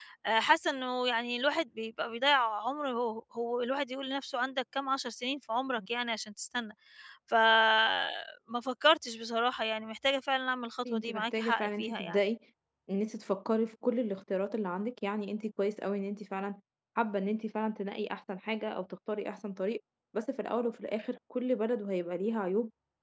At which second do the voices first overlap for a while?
10.9 s

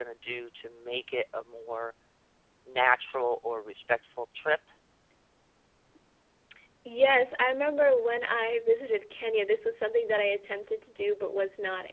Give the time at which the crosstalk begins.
none

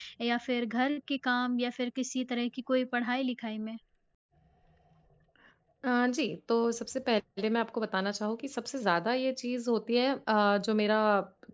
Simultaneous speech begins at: none

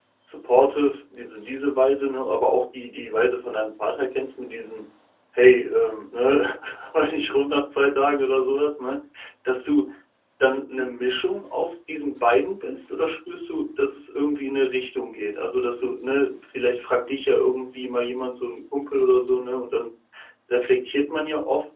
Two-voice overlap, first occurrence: none

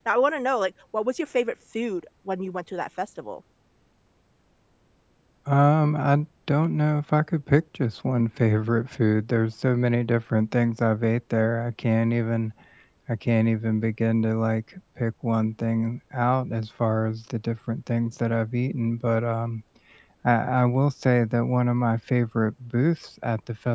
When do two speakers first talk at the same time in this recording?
none

